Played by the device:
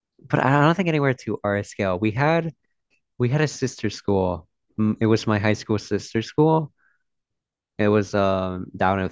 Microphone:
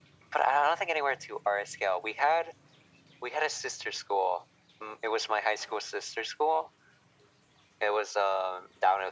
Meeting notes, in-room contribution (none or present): none